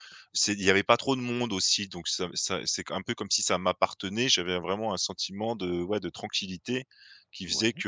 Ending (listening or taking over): listening